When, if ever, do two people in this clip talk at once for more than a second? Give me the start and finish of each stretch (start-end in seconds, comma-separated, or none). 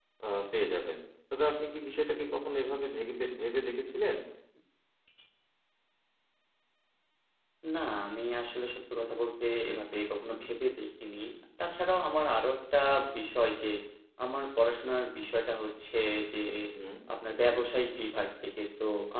none